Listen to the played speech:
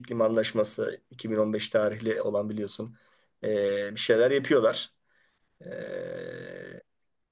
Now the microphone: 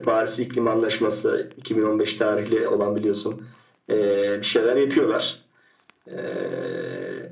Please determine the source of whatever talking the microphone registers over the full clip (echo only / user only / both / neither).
echo only